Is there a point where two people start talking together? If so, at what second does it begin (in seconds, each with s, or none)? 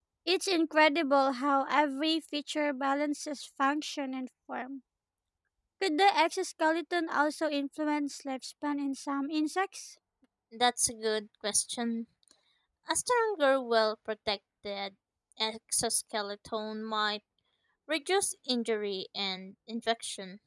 none